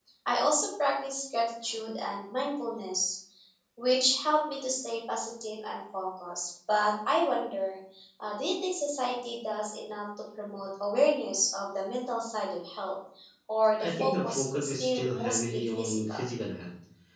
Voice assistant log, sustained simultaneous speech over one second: present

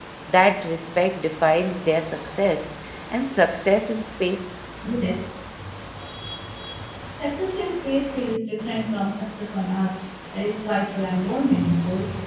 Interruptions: none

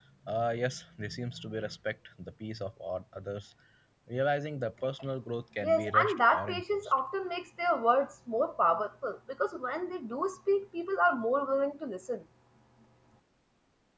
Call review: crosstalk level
present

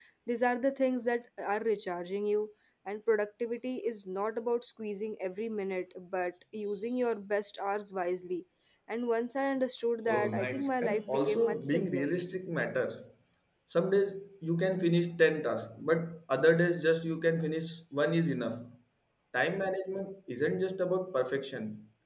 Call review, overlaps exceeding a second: present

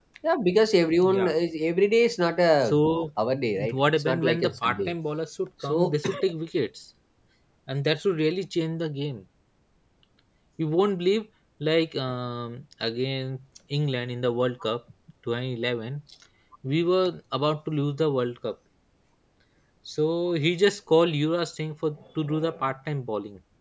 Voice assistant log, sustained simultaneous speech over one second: present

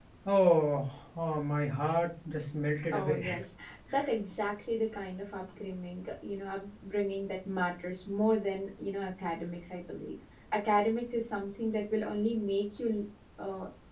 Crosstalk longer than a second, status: none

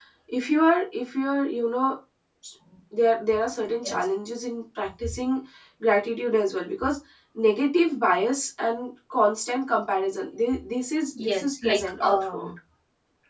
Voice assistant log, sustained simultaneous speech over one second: present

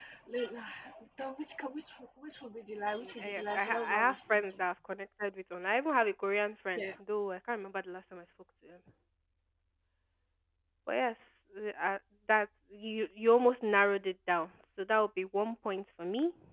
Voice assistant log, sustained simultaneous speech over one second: present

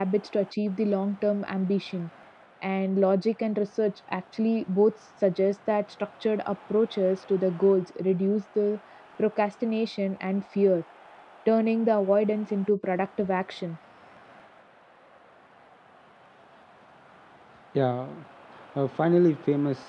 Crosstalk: none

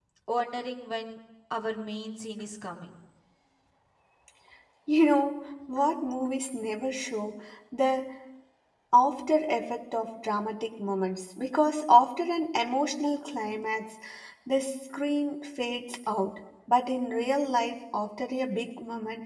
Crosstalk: none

